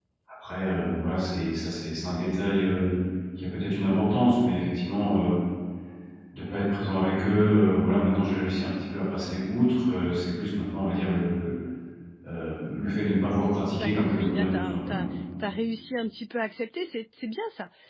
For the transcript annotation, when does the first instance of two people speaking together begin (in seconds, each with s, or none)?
13.8 s